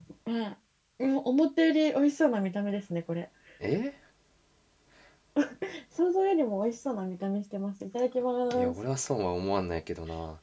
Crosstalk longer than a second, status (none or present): none